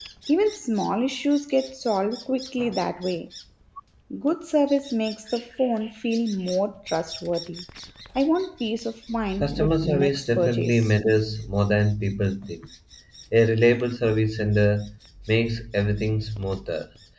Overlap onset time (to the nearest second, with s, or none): 9 s